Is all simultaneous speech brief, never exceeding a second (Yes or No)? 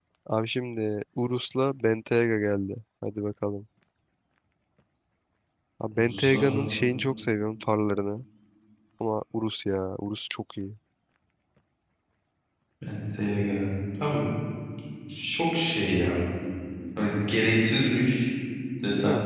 Yes